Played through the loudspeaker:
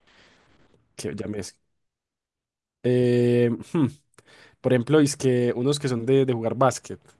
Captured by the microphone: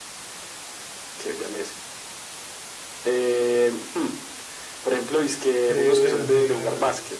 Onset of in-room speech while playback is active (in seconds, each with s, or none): 5.6 s